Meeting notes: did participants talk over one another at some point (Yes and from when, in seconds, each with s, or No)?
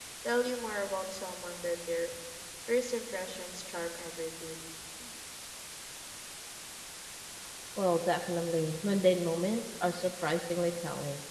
No